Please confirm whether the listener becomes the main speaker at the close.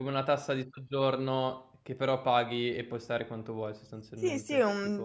Yes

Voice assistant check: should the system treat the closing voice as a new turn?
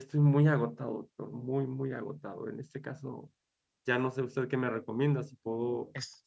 No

